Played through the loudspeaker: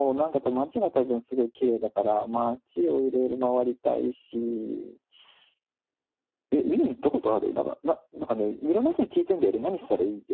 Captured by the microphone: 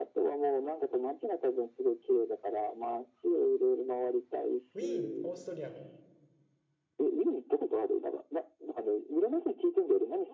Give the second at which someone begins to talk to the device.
5 s

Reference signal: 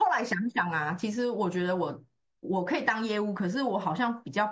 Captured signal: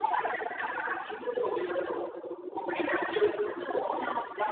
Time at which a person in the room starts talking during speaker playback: none

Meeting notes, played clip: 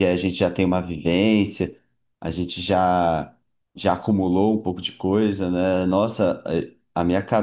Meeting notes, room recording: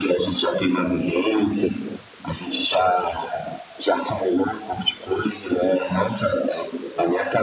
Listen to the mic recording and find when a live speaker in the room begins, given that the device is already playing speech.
none

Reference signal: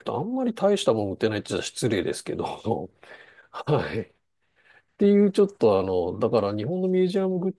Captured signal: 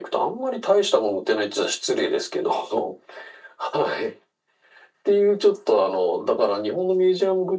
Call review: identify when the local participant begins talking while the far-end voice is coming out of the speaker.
none

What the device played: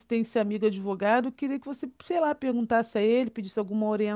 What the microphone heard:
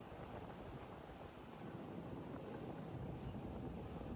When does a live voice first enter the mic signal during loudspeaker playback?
none

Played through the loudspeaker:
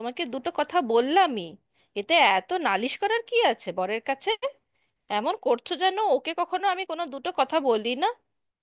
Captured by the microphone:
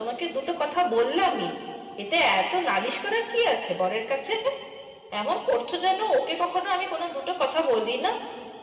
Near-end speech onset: none

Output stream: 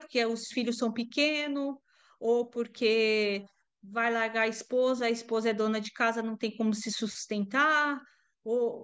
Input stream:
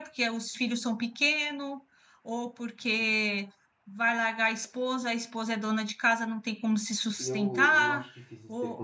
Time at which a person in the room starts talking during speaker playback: 7 s

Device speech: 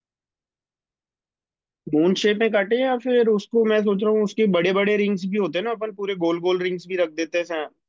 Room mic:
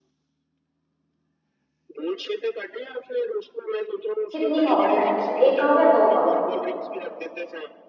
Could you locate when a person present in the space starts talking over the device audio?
4 s

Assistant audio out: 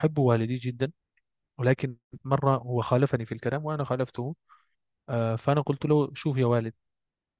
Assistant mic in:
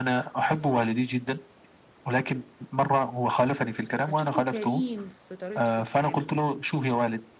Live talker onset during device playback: 4 s

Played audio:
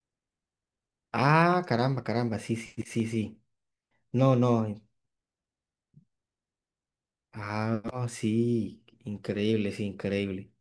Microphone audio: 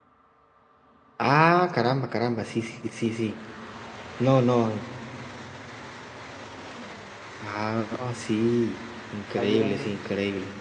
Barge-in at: 9 s

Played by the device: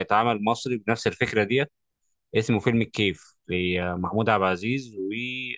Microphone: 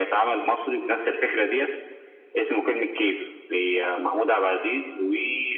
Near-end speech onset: none

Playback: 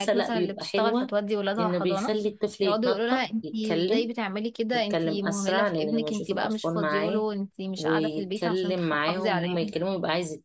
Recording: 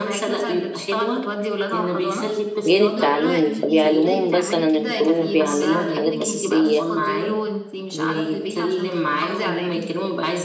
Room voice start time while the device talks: 3 s

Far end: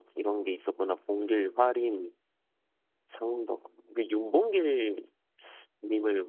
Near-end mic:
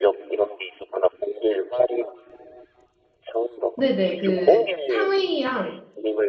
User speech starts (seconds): 4 s

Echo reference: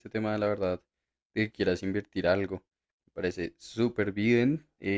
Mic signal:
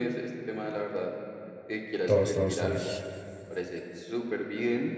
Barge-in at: 2 s

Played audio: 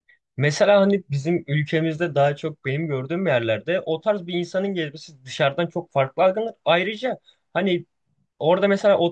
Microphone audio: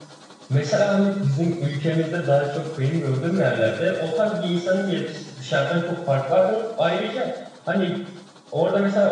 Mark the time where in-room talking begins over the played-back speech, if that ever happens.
none

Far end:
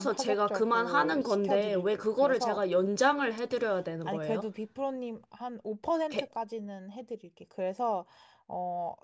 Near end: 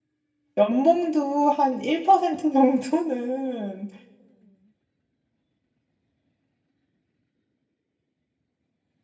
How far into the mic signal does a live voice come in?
1 s

